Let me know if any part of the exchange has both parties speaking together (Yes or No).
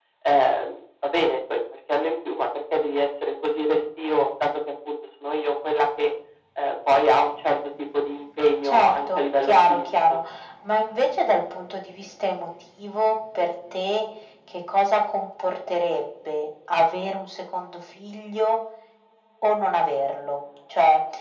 Yes